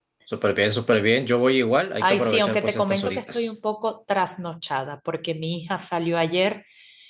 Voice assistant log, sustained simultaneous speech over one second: present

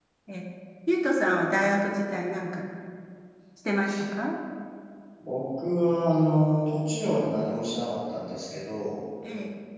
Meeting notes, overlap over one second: none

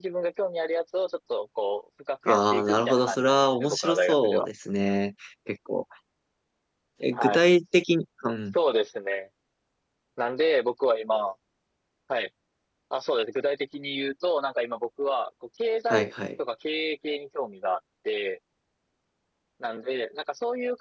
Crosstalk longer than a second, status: present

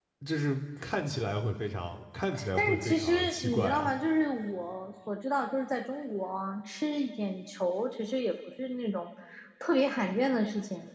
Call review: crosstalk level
present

